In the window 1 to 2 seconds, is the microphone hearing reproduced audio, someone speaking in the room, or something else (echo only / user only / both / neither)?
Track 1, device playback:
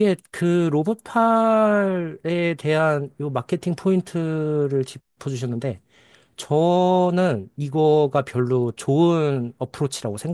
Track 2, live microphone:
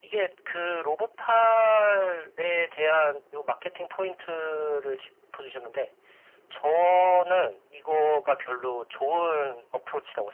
echo only